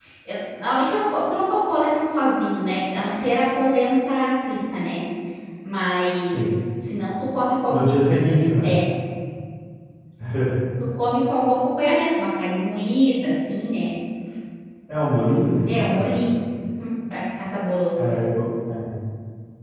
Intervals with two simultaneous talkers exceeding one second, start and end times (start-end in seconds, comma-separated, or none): none